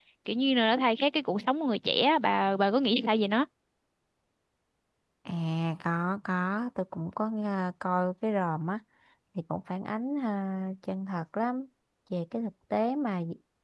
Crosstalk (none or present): none